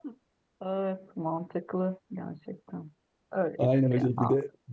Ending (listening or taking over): taking over